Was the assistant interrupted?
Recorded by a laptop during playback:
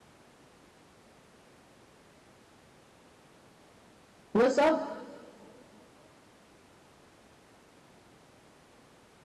Yes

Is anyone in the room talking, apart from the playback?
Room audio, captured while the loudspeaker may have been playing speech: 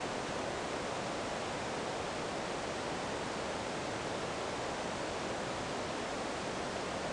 No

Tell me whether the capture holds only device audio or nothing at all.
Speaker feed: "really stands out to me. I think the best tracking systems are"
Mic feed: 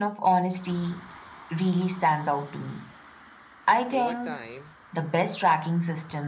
No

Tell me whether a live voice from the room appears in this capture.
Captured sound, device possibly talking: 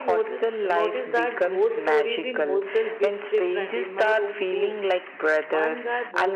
Yes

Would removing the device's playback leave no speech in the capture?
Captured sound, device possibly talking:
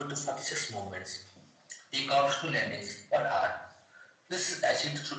Yes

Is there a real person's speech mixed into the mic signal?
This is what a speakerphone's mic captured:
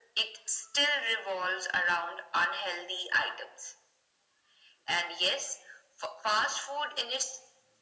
No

